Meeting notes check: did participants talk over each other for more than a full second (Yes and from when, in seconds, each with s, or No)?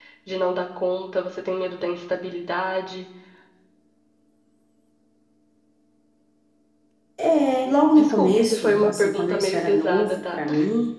Yes, from 8.0 s